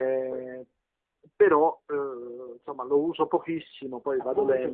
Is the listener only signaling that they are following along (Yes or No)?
No